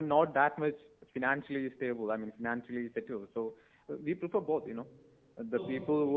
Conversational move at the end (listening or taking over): listening